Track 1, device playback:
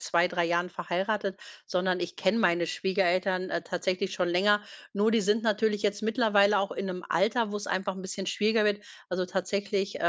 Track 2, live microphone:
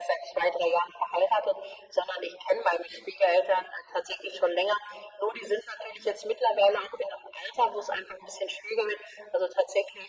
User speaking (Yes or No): No